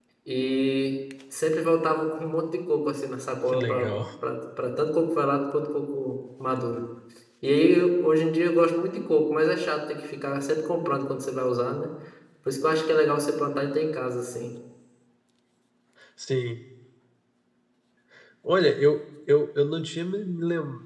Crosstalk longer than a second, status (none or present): none